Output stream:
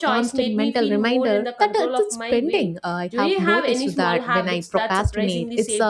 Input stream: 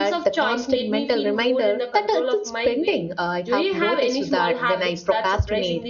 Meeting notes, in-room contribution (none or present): none